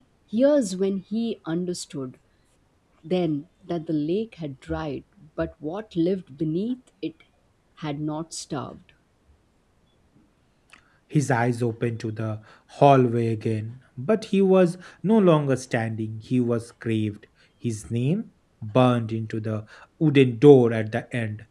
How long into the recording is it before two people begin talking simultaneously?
none

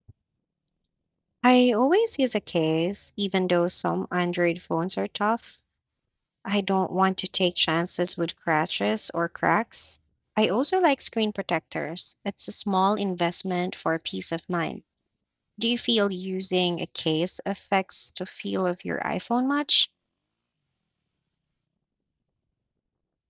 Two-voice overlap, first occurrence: none

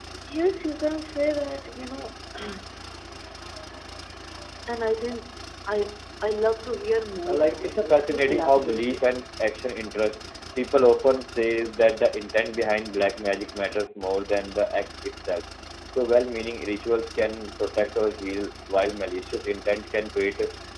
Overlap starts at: 7.3 s

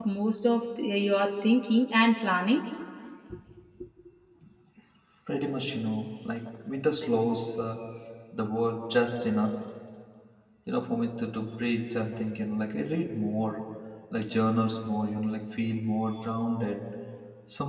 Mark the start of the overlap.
none

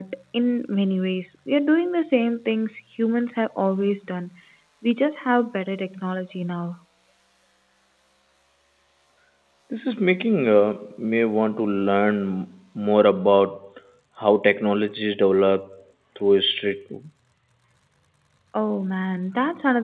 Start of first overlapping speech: none

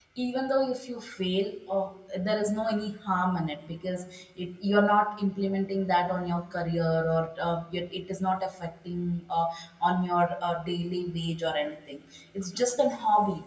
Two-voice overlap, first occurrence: none

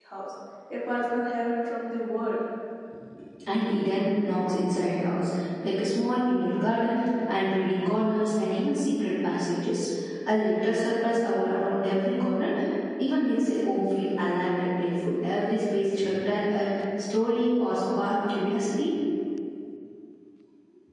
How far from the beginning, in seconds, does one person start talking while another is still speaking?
none

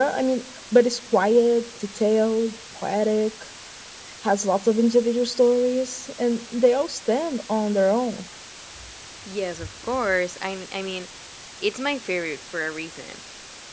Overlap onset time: none

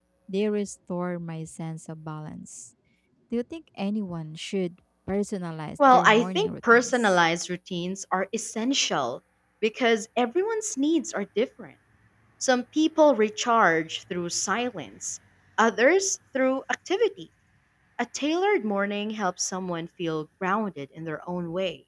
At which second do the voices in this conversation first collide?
5.8 s

